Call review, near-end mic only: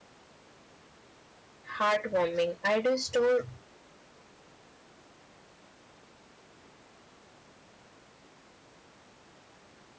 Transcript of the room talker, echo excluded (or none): heartwarming. I do store